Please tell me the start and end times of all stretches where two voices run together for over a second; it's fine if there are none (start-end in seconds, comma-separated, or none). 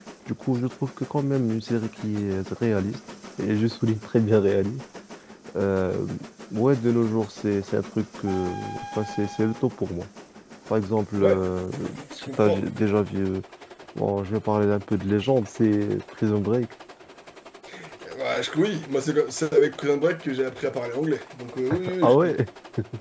none